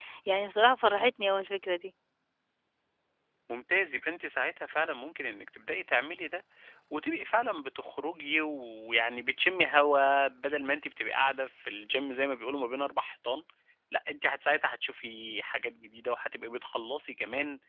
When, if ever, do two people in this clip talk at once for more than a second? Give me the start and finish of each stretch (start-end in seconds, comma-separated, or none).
none